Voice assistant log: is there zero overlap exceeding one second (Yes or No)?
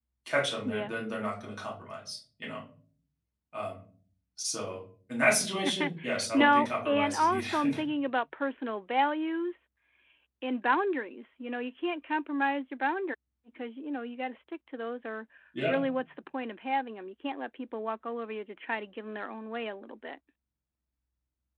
No